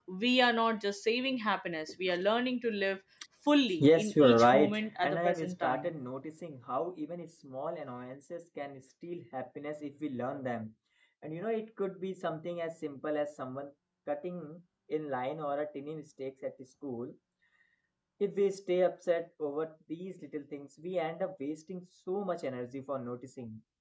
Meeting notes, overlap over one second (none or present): present